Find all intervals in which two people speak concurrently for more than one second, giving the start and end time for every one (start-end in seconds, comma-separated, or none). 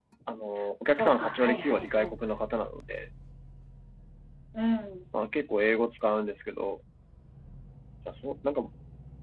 0.9-2.1